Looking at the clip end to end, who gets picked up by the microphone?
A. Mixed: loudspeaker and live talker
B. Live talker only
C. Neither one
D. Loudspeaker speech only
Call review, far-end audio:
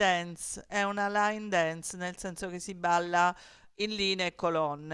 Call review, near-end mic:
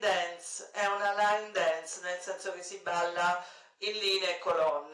D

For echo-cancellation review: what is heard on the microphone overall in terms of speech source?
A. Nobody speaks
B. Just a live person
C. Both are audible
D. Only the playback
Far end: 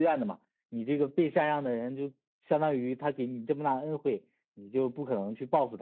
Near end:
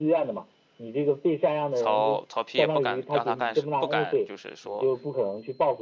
C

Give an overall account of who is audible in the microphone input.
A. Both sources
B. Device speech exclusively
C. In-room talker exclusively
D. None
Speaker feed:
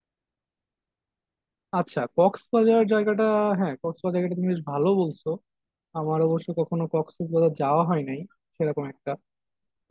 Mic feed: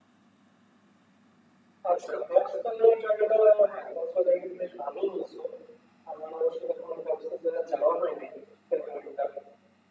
B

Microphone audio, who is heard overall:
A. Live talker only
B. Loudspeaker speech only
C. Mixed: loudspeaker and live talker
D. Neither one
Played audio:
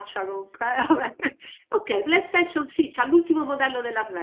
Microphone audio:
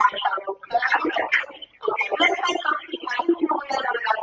B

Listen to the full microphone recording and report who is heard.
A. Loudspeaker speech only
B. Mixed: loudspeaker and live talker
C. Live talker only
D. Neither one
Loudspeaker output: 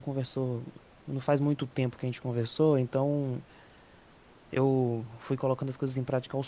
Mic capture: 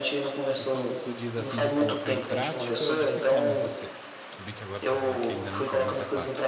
B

